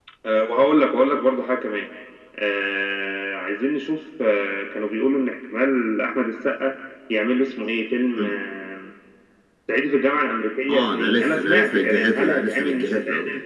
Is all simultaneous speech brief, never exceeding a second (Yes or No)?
No